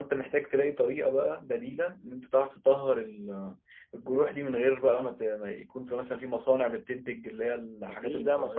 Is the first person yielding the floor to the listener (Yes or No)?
Yes